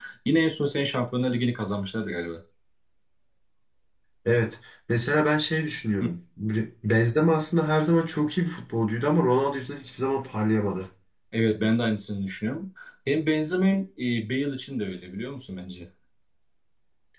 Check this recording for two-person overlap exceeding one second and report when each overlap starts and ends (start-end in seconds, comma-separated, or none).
none